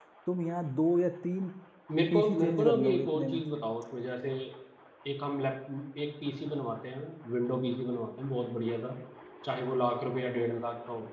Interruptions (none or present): present